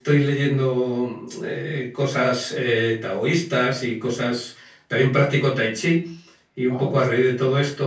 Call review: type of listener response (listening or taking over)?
listening